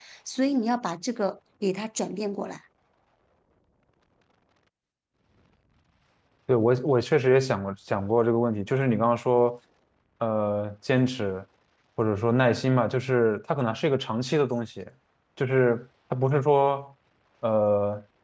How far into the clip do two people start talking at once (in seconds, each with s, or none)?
none